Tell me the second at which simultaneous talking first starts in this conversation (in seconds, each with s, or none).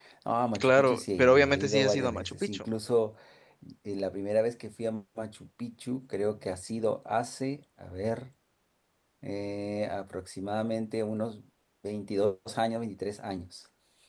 0.6 s